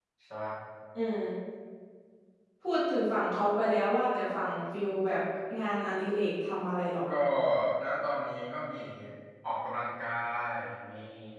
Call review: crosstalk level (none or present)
none